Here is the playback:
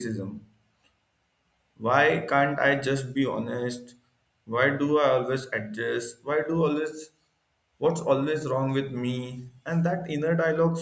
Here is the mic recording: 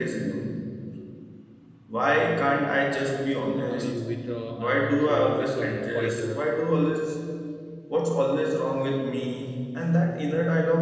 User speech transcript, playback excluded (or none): uh, you withdraw and also you become quieter